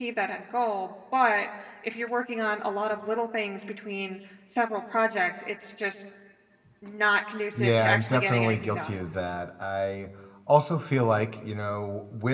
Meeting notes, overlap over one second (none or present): present